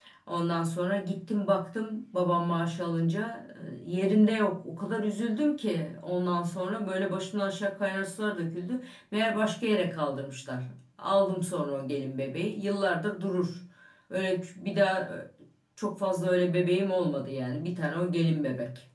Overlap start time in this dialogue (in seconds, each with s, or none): none